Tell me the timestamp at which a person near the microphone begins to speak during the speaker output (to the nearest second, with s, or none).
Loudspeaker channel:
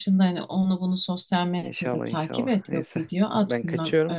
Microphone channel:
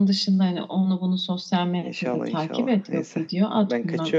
none